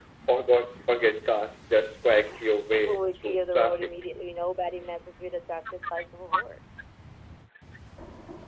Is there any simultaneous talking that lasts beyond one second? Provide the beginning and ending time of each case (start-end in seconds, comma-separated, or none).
2.7-3.9